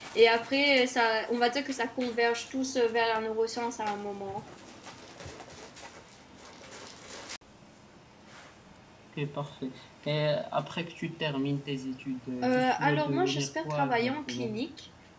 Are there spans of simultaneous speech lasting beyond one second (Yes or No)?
Yes